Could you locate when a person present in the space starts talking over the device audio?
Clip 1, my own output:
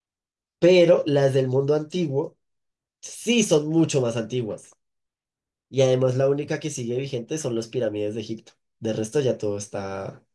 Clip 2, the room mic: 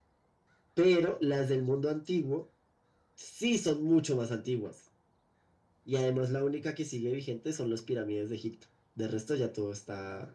none

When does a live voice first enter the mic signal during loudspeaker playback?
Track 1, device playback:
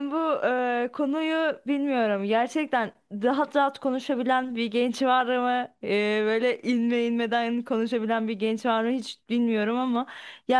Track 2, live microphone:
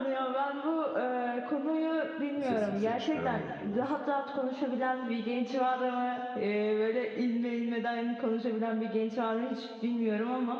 2 s

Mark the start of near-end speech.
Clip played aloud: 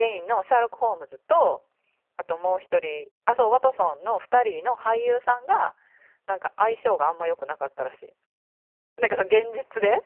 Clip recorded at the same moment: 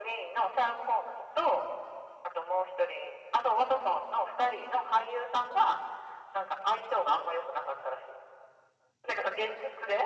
none

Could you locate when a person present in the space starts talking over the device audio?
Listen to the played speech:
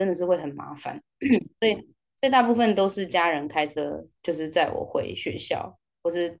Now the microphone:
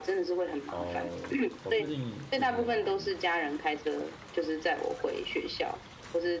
1 s

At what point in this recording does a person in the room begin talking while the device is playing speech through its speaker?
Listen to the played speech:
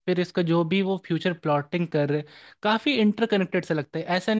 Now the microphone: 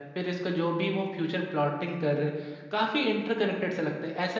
none

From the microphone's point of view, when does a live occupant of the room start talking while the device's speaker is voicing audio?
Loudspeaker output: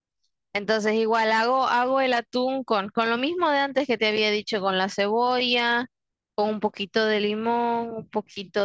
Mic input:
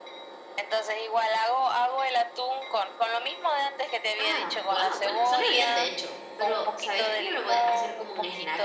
4 s

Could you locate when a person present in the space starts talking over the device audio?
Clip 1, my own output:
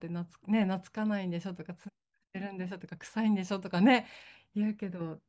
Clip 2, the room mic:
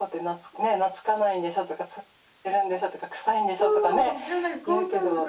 3 s

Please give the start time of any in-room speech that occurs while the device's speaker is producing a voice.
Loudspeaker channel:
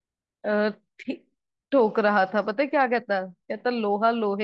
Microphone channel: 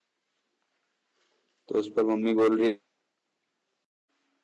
2 s

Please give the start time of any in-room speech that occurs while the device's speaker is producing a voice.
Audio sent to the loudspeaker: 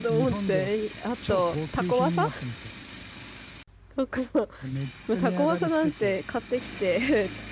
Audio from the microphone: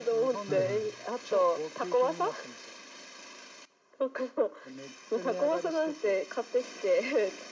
0 s

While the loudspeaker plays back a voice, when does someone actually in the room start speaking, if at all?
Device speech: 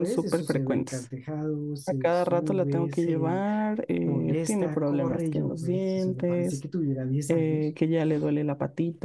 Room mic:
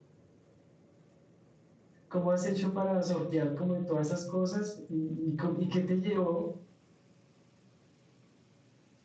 2 s

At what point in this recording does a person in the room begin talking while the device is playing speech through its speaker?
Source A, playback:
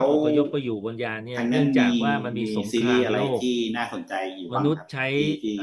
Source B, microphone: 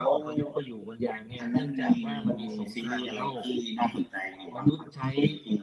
none

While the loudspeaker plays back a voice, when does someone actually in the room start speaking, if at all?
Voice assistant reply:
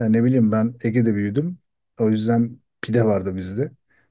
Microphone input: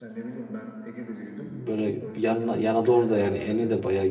1 s

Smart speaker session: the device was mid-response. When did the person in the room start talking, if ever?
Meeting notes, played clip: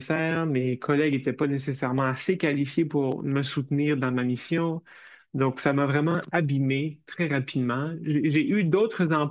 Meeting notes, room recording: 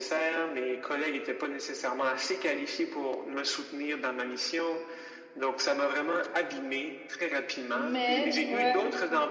8 s

